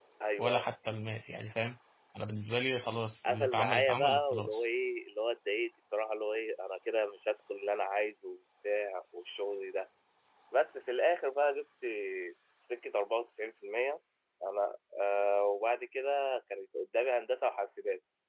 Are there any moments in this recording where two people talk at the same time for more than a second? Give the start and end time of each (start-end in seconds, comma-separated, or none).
3.2-4.7